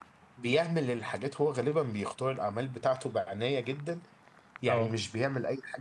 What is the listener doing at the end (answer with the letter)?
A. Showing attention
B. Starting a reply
A